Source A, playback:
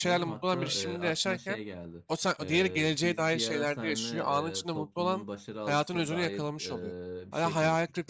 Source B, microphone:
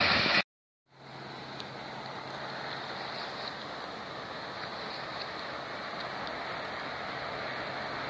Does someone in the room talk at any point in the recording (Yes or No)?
No